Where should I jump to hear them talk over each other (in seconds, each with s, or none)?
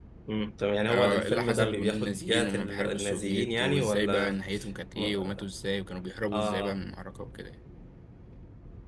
0.9 s